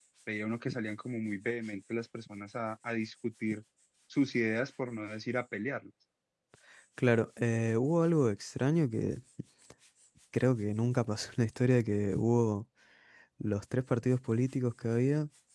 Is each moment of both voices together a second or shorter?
Yes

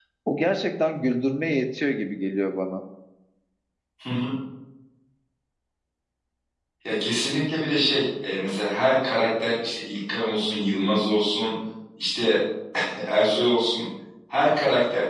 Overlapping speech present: No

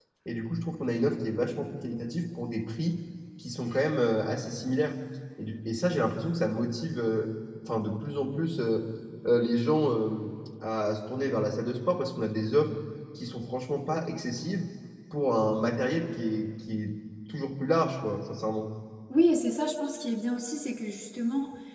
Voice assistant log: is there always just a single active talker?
Yes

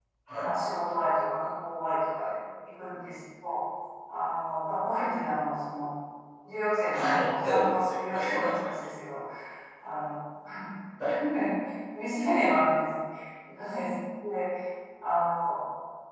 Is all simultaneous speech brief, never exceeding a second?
No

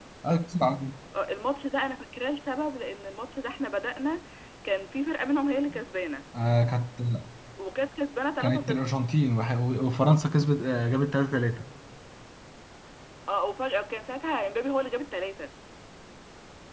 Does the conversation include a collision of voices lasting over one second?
No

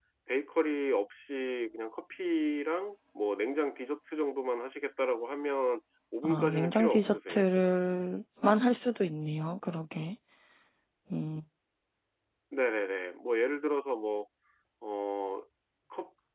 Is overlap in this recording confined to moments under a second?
No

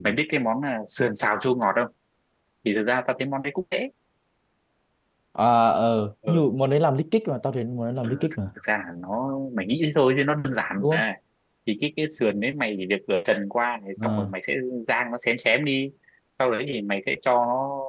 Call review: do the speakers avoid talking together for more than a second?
Yes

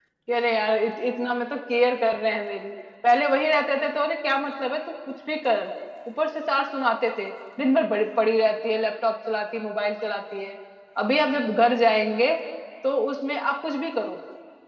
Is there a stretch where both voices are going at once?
No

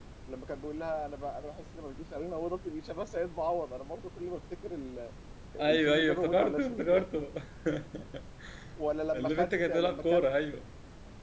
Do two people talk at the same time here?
Yes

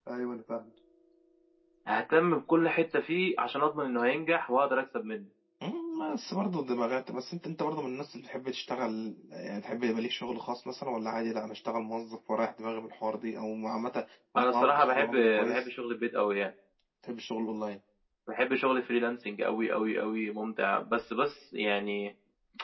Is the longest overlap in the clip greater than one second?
Yes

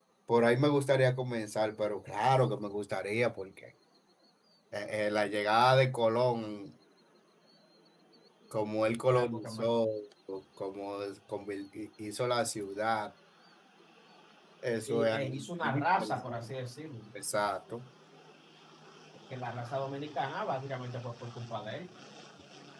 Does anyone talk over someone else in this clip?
Yes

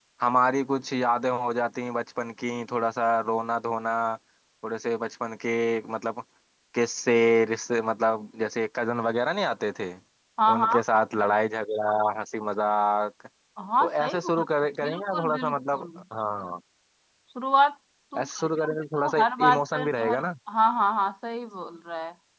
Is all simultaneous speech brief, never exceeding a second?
No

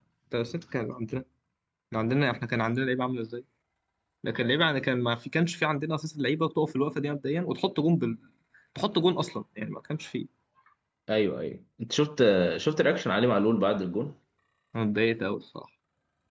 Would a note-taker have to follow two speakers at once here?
No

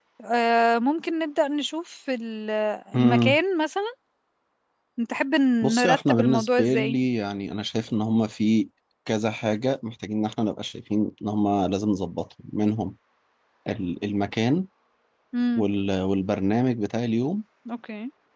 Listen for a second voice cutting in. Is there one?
Yes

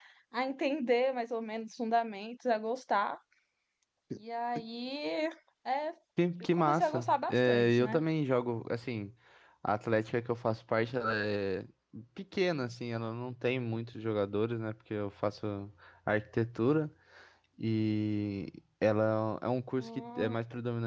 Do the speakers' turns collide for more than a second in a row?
Yes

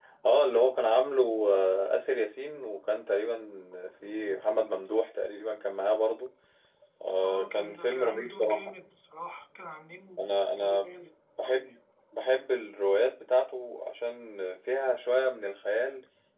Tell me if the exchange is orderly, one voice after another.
No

